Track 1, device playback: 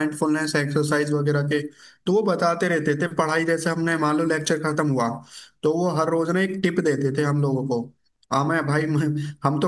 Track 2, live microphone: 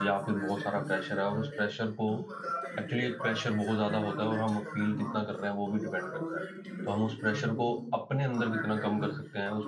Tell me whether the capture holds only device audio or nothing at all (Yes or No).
No